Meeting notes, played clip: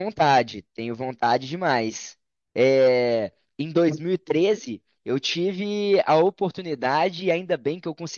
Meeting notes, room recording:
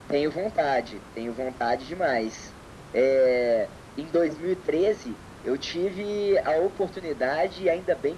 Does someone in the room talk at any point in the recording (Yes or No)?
No